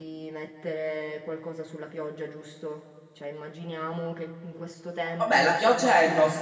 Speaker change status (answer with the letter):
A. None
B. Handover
B